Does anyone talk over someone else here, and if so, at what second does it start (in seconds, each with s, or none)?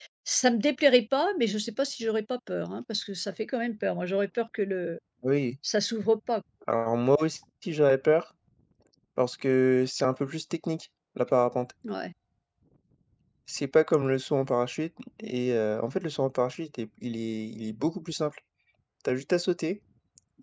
none